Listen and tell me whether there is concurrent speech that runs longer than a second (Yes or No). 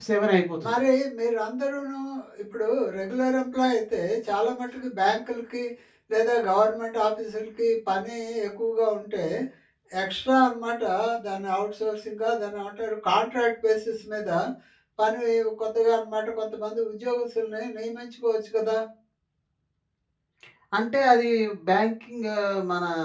No